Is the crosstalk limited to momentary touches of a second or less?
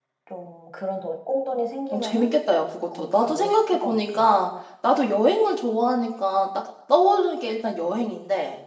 No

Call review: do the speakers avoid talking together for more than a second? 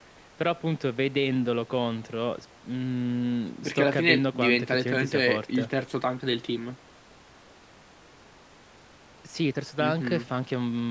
No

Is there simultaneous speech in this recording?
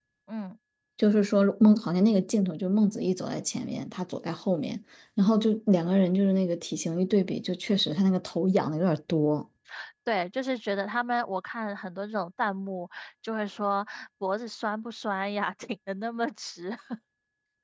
No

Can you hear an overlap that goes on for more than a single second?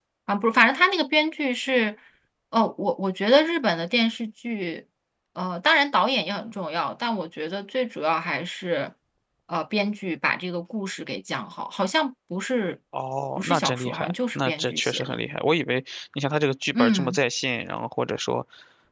Yes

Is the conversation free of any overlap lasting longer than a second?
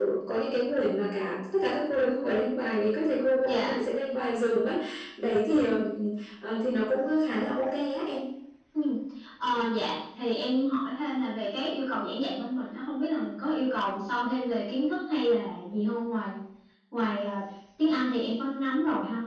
Yes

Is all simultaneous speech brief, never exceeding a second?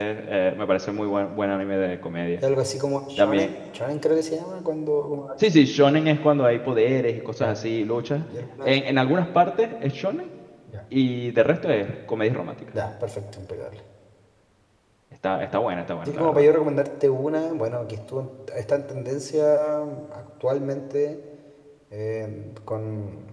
Yes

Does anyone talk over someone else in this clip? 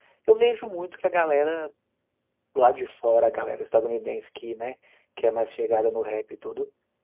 No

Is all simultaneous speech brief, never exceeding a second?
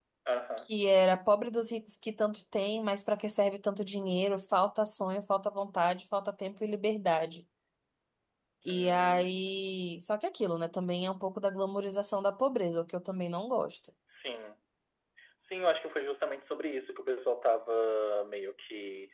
Yes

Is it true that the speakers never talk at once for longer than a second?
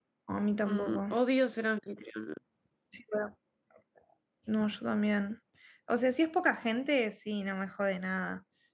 Yes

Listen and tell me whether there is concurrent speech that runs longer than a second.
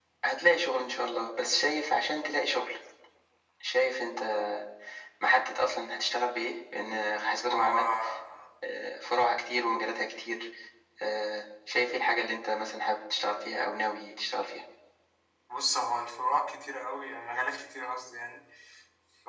No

